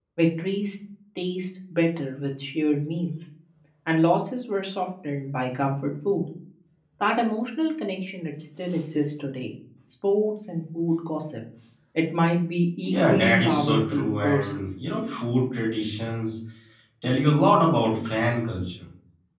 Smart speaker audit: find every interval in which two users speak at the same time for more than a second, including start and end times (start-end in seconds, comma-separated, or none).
12.8-14.6